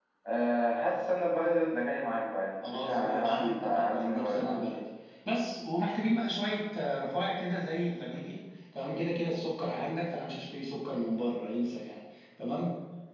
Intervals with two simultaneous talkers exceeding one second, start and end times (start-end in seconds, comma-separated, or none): 2.6-4.6